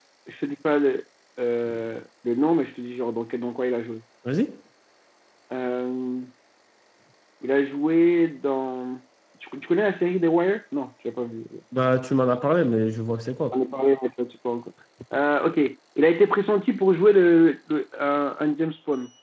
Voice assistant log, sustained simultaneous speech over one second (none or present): none